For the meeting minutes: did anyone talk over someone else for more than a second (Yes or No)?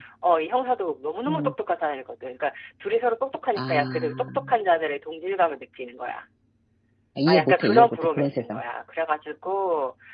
Yes